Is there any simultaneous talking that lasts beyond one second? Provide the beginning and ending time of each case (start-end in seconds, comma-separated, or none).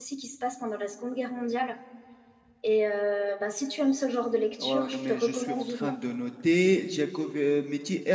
4.6-5.9